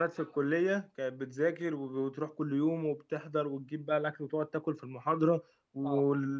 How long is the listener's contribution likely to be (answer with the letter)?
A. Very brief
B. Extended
A